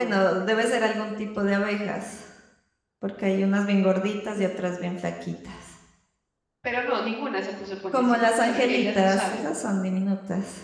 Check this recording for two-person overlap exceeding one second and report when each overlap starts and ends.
7.9-9.4

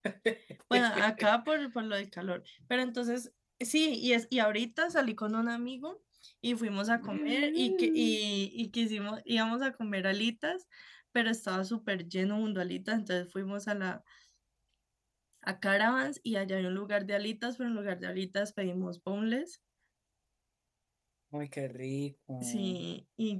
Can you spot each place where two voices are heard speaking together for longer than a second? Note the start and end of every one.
6.9-8.2

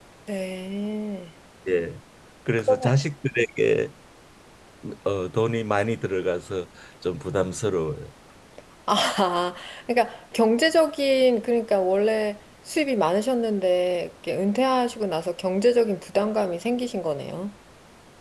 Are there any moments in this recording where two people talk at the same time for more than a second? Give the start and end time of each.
none

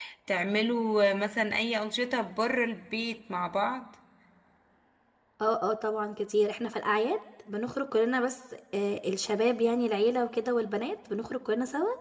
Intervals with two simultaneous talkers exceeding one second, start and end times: none

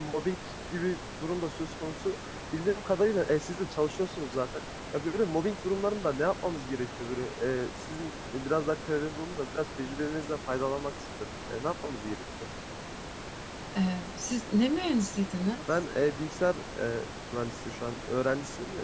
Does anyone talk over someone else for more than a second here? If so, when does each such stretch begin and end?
none

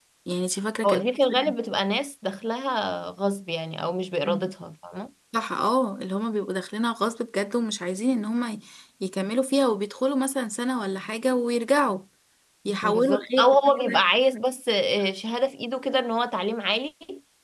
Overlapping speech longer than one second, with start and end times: 12.8-14.0

